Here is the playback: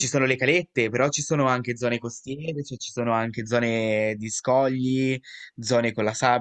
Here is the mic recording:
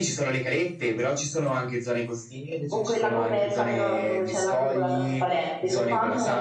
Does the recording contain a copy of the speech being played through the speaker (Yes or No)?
Yes